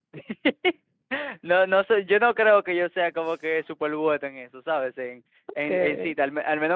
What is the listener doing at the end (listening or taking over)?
listening